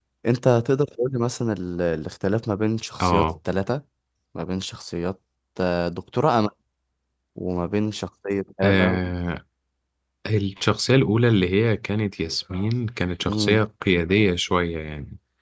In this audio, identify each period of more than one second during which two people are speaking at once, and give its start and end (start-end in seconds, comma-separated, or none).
none